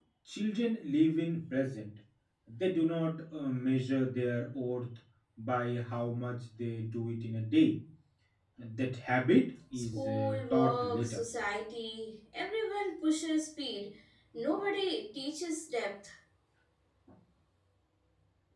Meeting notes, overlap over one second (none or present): present